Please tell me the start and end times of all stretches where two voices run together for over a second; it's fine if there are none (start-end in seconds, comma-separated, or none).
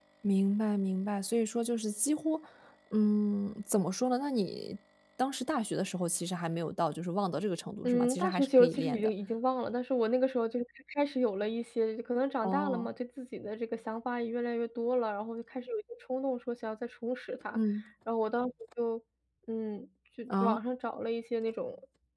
7.8-9.1